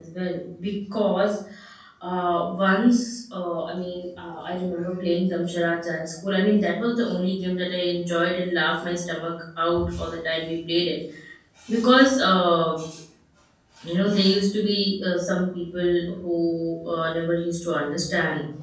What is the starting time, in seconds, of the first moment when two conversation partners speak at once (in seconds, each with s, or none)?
none